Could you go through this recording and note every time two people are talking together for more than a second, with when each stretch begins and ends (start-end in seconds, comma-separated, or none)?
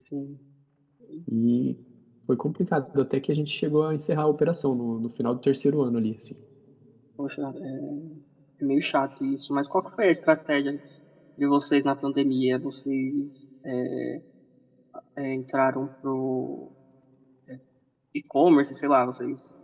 none